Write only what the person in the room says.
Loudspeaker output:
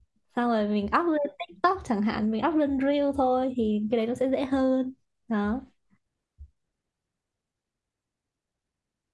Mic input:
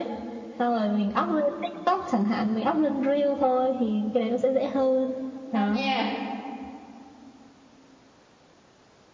ngon nha

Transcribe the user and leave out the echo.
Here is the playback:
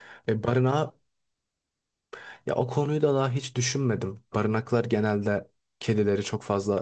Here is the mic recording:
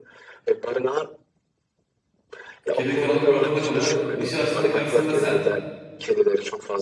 Kedi karanlık bir ortamda kalıyor. Işığı açtığında karşısında sen.

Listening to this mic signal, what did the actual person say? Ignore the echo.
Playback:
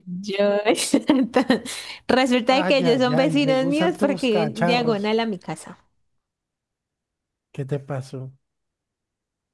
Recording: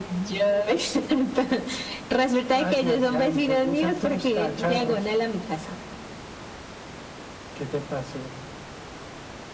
none

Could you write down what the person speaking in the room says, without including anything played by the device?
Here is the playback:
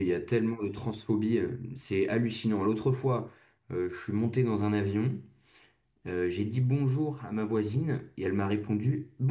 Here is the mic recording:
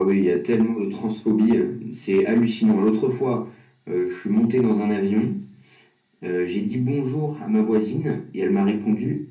none

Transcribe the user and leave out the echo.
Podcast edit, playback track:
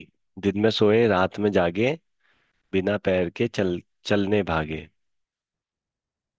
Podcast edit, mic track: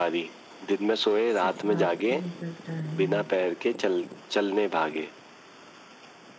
सिर्फ रात को निकलता है

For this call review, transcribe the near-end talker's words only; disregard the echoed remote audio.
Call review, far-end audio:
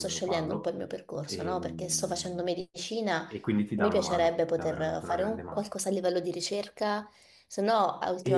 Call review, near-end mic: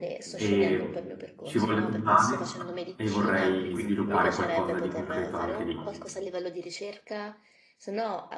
e ci voglio tornare e vorrei sviluppare qualcosa di concreto anche lì,

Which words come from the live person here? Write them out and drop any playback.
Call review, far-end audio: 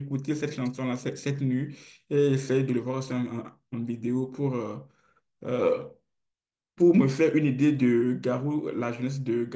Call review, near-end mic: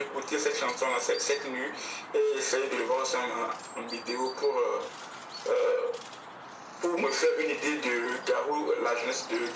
none

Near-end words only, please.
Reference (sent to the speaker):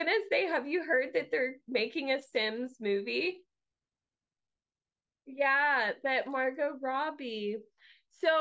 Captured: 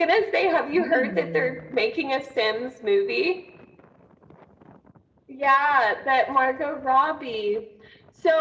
Ooh.

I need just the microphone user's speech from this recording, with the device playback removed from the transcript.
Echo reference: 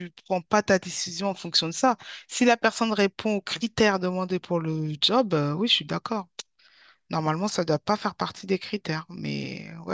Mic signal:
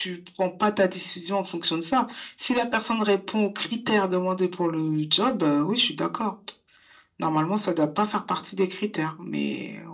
none

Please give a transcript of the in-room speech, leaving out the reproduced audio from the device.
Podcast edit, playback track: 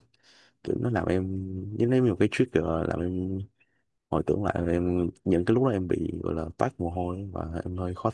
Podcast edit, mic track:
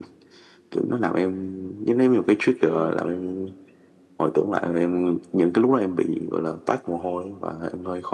ừ

